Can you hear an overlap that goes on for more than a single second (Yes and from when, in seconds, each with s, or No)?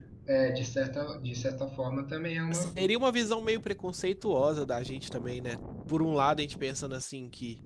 No